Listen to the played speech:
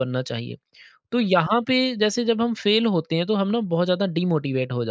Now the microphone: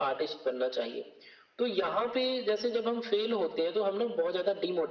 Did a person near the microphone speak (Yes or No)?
No